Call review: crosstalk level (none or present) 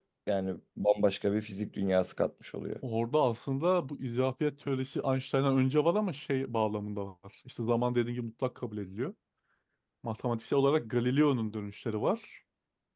none